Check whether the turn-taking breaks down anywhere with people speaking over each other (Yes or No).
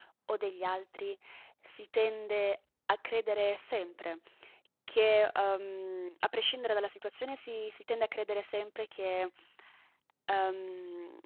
No